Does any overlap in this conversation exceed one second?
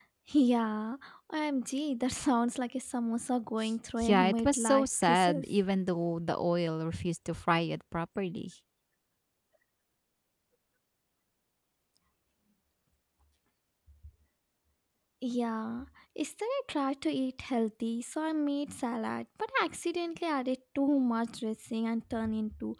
Yes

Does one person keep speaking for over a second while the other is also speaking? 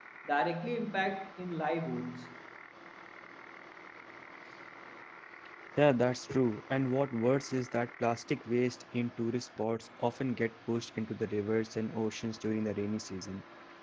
No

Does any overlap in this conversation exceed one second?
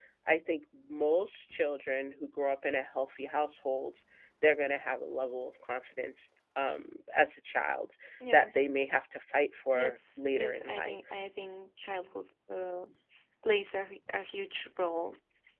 Yes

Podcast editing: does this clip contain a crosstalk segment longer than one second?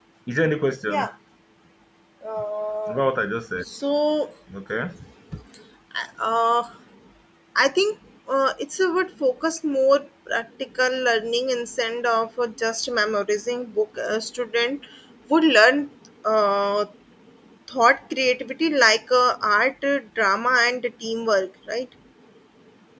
No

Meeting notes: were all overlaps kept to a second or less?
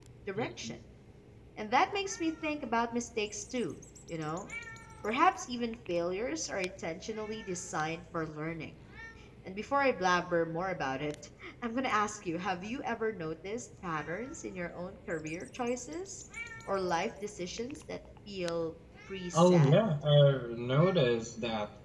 Yes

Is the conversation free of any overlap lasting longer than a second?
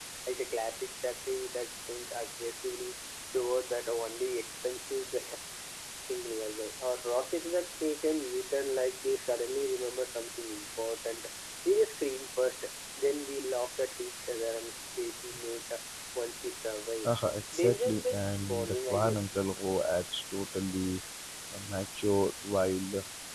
No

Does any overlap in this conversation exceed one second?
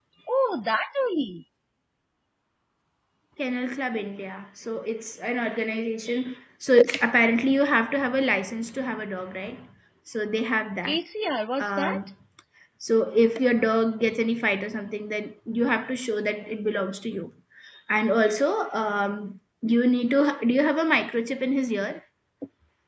No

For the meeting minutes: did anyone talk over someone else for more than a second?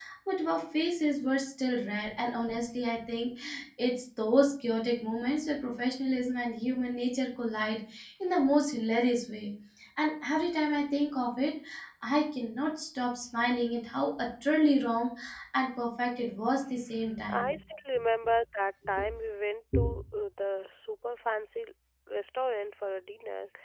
No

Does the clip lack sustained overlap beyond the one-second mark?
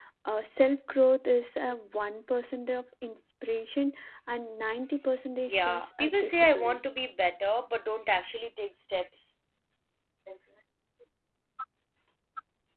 No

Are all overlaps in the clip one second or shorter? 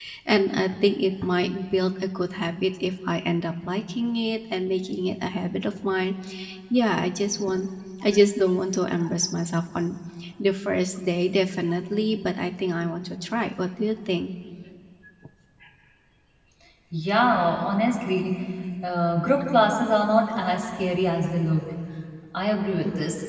Yes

